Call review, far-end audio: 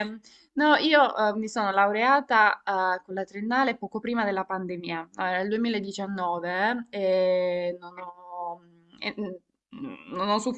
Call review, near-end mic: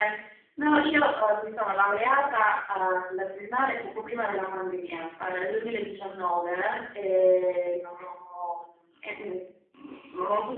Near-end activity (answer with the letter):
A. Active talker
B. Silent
B